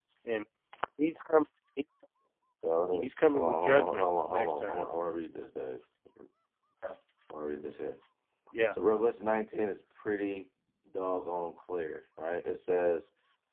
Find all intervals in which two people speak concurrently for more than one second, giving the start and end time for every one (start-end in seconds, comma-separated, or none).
3.0-4.9